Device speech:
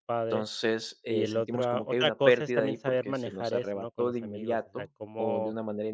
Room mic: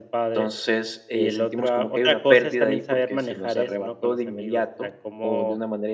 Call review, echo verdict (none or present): present